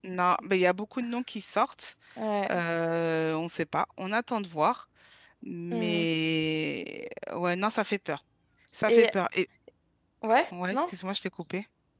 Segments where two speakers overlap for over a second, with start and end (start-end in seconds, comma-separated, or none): none